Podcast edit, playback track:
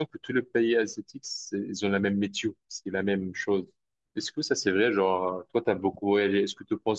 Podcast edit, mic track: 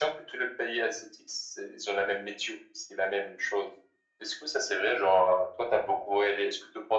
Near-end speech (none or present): none